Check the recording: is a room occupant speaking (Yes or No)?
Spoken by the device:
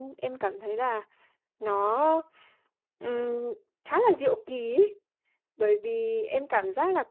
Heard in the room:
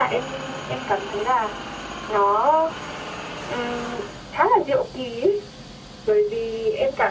No